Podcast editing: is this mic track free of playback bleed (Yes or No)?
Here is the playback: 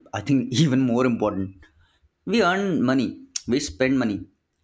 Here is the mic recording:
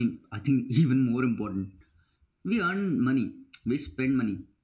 No